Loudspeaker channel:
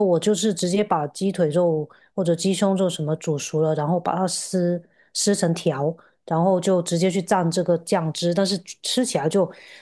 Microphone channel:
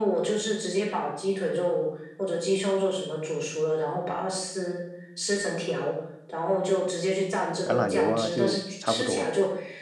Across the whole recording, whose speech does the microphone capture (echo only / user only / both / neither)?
both